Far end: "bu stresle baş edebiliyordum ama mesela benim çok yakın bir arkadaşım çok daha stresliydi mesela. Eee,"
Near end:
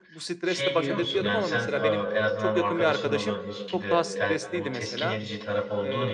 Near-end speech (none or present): present